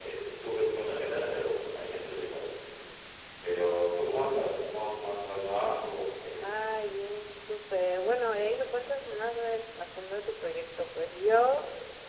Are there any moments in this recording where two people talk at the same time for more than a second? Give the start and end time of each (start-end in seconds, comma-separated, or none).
none